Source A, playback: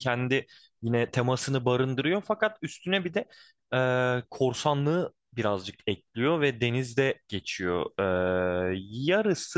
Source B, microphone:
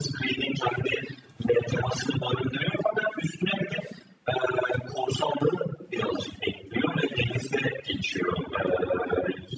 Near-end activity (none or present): none